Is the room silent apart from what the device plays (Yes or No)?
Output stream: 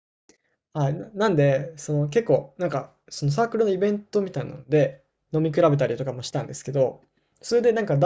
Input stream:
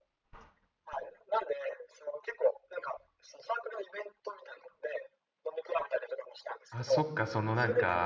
No